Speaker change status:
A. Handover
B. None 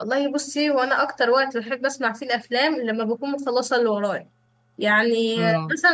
B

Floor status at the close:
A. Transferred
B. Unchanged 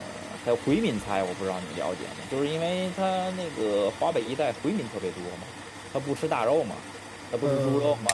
B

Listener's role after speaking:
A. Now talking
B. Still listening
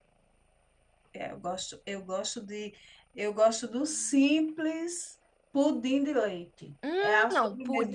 A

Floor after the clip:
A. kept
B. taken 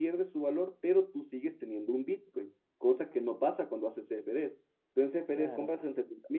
A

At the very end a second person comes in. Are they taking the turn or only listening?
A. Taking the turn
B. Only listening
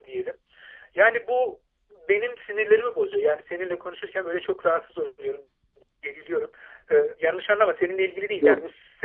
B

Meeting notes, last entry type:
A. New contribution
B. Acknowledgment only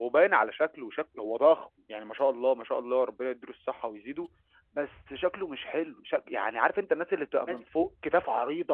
B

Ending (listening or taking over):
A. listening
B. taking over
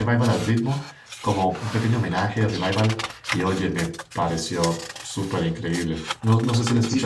B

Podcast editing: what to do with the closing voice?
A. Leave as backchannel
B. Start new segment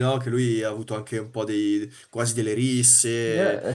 B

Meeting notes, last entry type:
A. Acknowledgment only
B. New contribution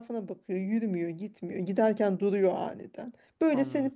A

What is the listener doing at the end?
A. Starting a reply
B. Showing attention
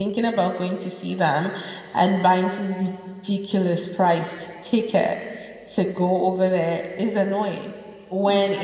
B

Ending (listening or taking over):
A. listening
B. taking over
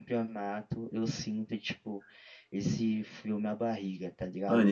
B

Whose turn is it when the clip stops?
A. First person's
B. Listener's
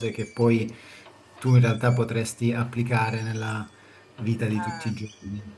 A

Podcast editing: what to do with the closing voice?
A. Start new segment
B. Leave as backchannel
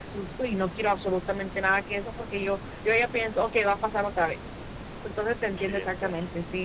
B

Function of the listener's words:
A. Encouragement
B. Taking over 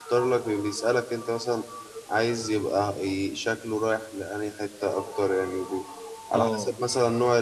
A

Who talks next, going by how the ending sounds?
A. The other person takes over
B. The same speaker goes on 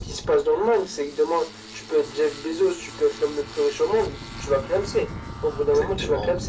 A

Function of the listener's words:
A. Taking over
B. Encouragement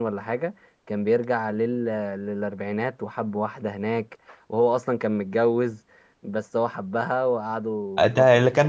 A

